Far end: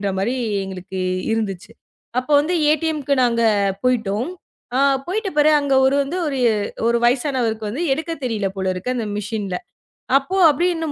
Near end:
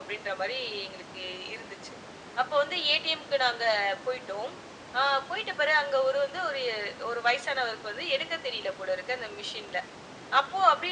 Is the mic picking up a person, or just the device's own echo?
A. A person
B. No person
B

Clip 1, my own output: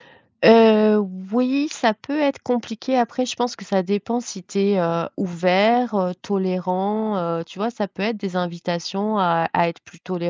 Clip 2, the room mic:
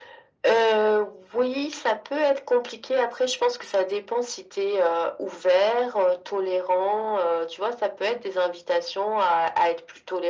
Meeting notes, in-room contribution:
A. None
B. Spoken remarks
A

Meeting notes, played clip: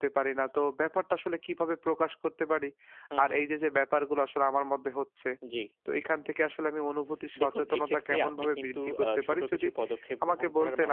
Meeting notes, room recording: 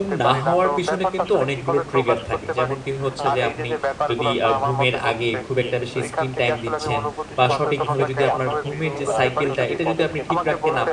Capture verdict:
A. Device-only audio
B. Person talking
B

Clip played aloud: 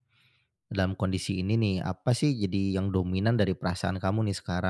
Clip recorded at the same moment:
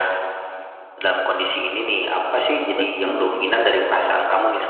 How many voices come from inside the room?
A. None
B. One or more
B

